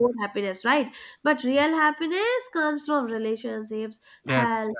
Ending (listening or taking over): listening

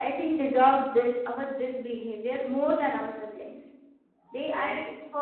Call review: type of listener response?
listening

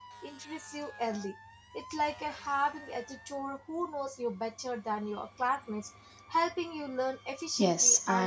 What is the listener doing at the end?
taking over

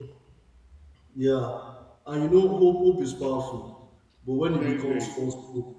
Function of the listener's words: listening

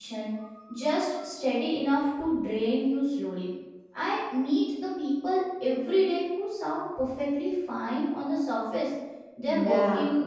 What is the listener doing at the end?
listening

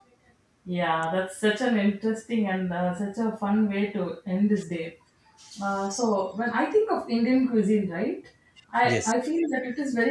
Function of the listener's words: listening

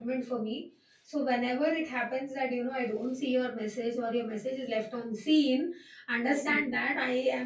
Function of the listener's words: listening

